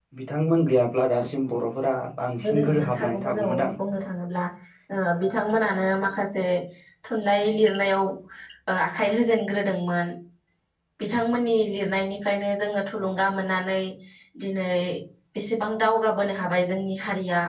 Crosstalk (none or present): present